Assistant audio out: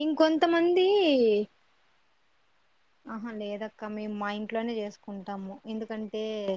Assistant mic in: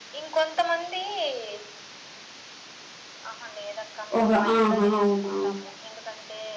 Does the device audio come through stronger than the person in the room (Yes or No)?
No